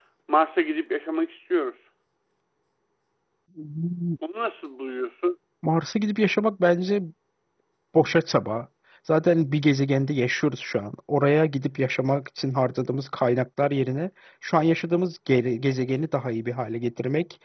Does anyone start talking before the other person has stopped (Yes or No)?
No